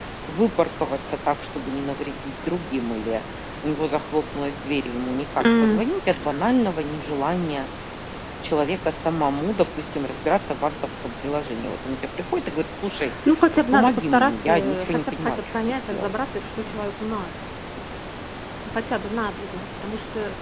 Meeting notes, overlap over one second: present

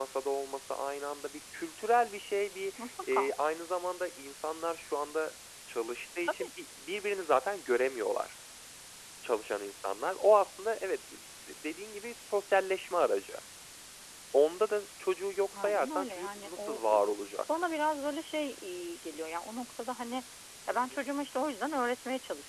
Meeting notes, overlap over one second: present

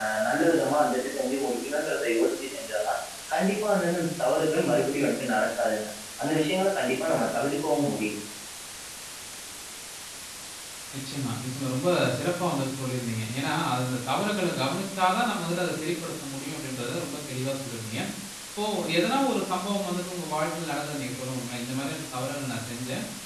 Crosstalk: none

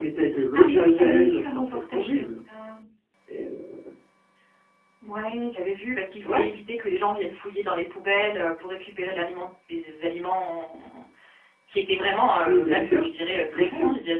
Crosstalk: present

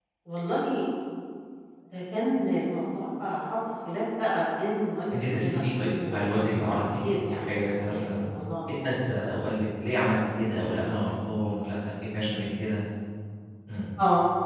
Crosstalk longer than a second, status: present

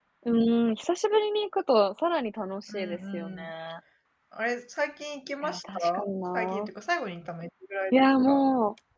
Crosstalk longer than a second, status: present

